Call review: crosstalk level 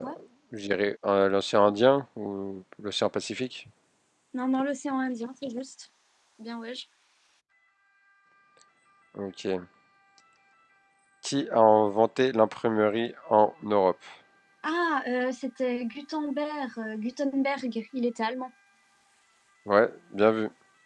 none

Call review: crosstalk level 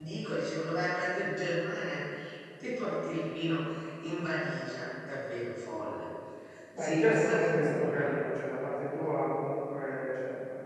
present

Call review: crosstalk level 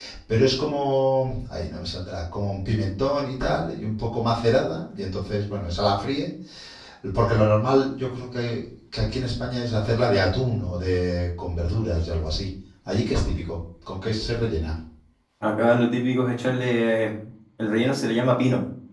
none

